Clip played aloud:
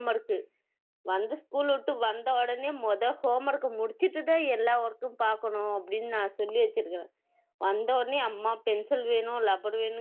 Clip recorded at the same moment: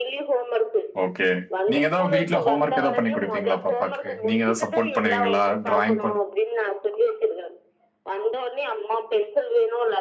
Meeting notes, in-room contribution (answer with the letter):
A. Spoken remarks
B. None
A